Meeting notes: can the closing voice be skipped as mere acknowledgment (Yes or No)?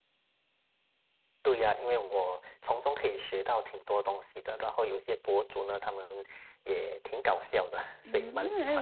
No